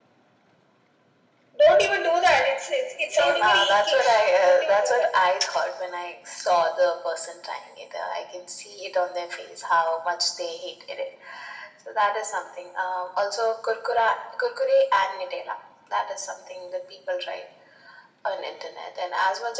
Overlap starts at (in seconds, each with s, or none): 3.1 s